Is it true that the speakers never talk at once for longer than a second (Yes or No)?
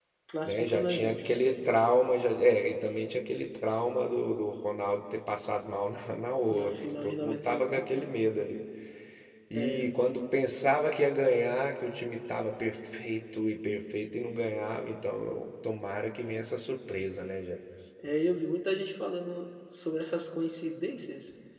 No